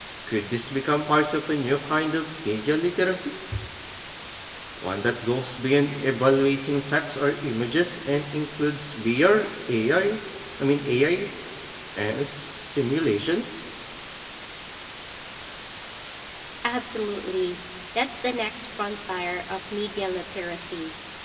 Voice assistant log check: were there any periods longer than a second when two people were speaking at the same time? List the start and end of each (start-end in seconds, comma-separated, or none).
none